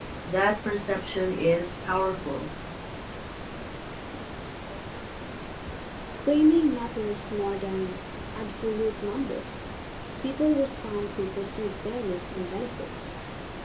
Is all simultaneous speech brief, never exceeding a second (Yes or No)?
Yes